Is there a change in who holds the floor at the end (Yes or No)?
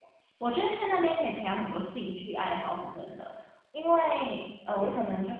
No